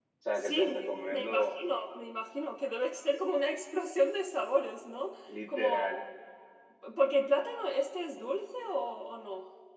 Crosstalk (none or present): present